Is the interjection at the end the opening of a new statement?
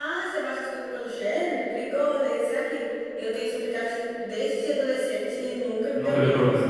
Yes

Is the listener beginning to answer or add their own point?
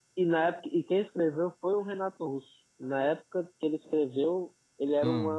No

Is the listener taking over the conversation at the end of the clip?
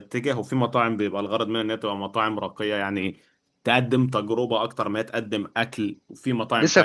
Yes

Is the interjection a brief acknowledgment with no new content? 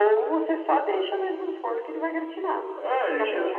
No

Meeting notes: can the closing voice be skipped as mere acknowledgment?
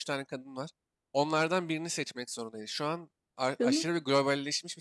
Yes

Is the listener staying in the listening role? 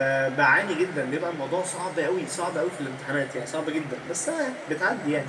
No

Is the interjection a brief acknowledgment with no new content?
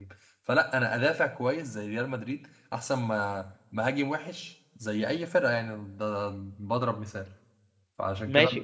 No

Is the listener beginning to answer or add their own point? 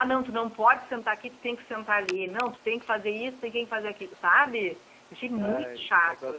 Yes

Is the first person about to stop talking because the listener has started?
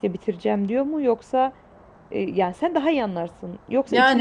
No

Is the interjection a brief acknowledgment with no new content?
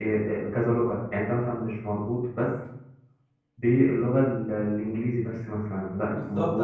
No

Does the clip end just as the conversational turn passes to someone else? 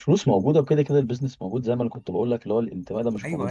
No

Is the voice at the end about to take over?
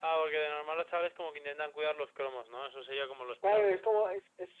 Yes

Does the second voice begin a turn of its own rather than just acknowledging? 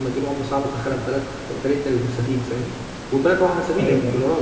No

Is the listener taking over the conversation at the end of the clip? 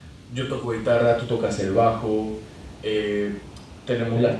No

